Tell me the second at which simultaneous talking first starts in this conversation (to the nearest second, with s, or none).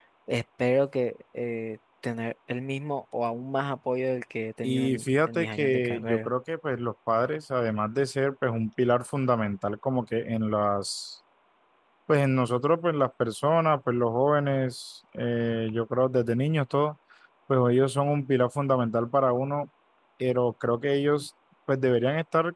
5 s